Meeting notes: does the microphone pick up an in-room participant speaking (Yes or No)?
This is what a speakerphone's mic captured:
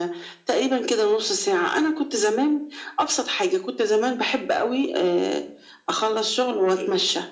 No